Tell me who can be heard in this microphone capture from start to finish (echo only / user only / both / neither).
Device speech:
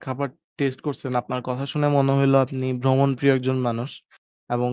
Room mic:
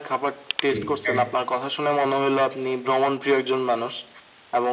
both